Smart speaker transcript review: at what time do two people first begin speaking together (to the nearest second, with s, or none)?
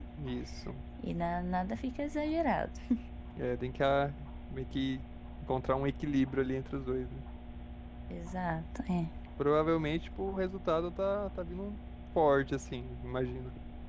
none